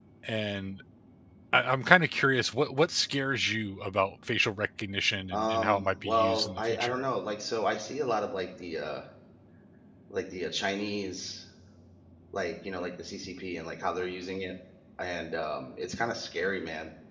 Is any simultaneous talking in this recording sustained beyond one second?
Yes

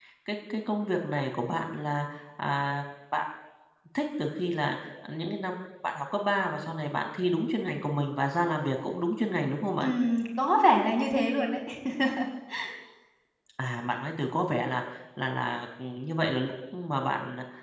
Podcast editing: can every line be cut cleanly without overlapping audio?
Yes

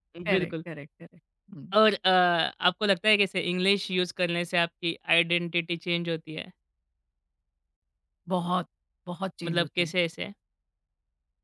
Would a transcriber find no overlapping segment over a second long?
Yes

